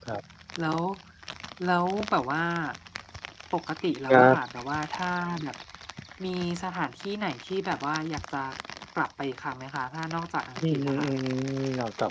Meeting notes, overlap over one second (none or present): none